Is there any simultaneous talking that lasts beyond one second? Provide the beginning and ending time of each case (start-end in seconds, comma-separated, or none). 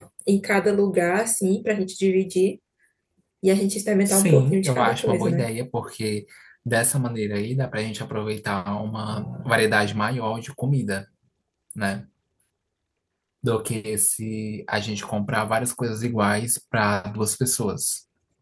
4.0-5.5